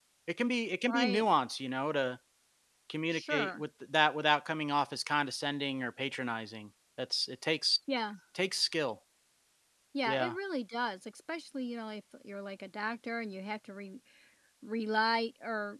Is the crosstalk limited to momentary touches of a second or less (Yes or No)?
Yes